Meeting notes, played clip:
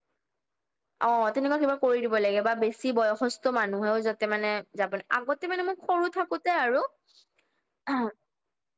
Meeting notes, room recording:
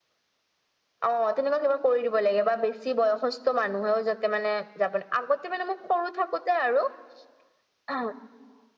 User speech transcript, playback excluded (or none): none